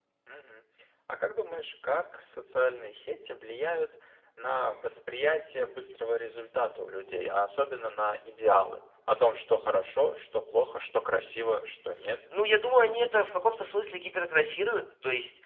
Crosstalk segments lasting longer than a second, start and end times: none

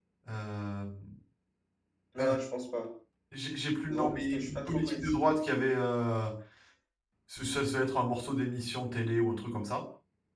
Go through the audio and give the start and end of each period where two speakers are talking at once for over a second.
3.9-5.2

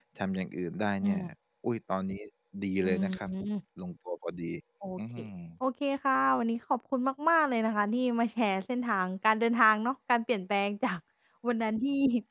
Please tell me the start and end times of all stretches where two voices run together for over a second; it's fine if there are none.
none

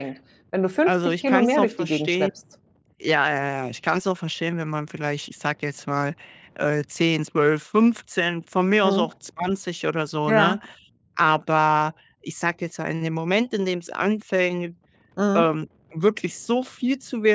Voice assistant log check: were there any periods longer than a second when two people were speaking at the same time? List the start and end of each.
0.9-2.3

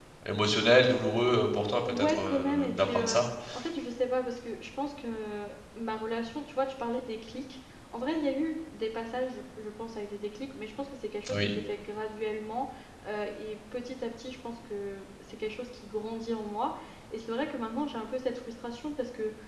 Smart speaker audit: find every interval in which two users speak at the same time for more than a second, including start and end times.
1.9-3.2

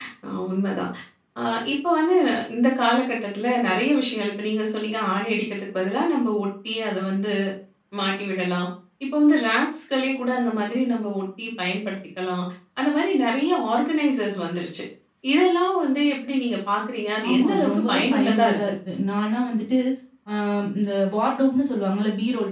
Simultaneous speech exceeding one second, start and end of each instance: 17.3-18.7

